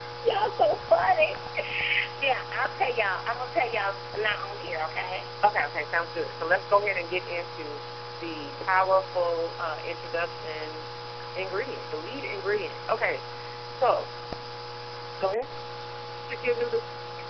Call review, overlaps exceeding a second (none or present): none